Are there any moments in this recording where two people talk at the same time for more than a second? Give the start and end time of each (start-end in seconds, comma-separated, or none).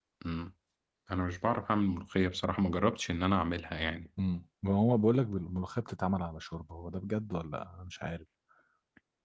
none